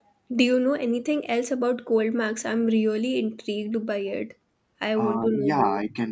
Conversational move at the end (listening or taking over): taking over